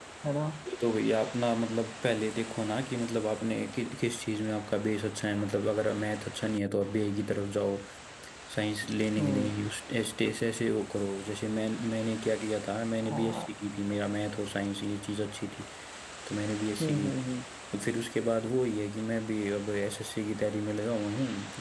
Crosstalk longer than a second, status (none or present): none